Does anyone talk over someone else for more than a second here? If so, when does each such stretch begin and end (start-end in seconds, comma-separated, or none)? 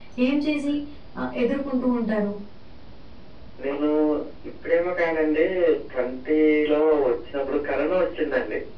none